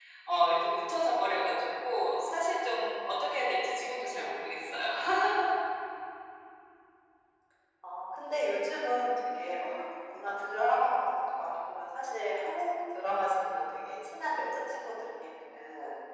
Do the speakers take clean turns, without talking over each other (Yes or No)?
Yes